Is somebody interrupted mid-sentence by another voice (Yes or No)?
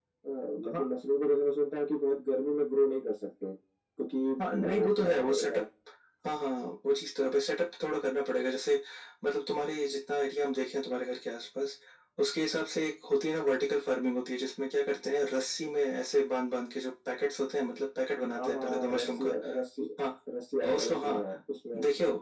Yes